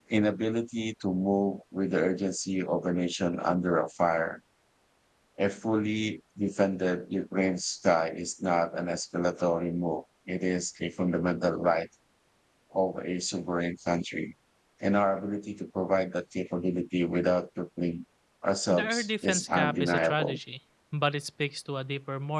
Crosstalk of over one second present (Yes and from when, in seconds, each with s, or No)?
Yes, from 18.7 s